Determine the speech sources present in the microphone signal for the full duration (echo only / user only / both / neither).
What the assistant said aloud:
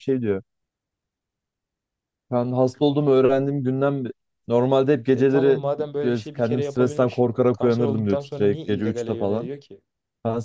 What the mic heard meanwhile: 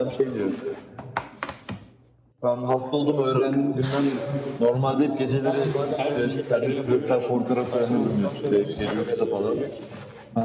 both